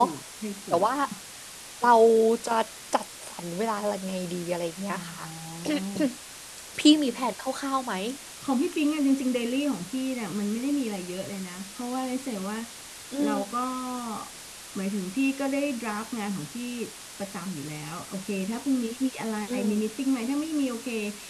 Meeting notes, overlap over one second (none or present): none